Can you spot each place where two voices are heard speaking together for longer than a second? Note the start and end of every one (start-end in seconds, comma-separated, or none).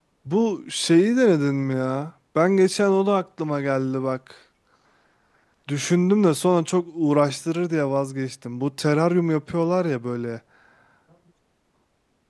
none